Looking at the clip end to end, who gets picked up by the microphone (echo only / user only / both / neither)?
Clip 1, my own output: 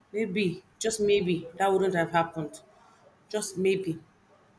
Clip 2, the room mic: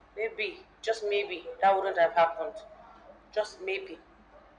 echo only